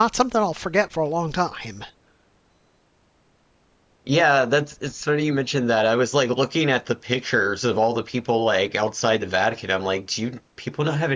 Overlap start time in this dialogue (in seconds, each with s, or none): none